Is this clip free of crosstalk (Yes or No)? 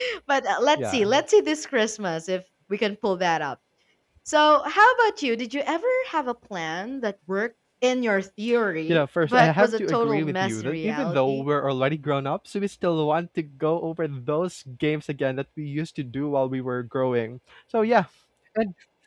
No